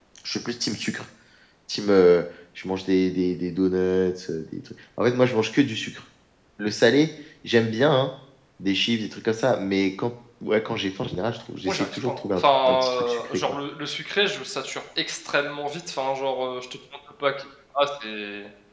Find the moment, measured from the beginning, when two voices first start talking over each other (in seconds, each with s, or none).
11.7 s